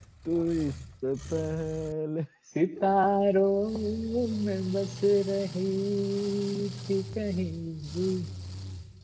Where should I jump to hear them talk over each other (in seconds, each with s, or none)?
none